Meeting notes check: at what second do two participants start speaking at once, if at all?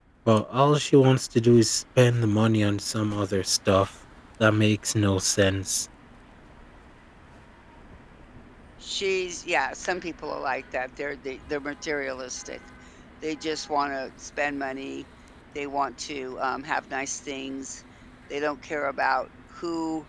none

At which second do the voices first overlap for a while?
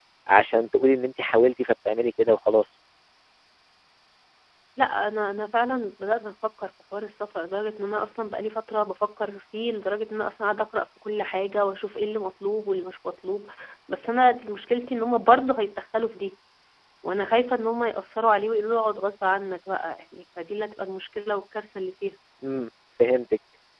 none

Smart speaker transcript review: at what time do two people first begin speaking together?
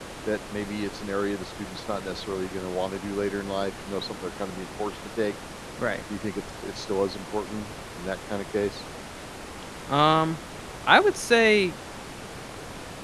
none

